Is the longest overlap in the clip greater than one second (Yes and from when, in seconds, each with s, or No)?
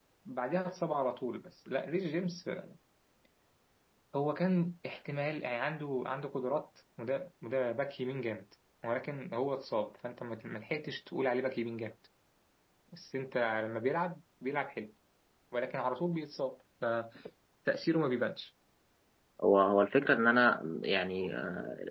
No